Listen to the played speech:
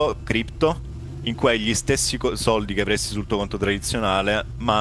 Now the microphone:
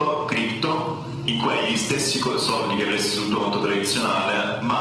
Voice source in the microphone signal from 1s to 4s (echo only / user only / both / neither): echo only